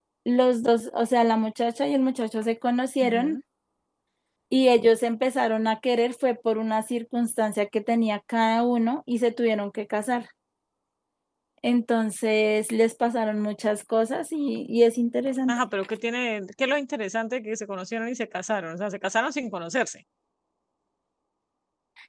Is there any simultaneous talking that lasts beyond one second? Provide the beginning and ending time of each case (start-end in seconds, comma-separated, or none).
none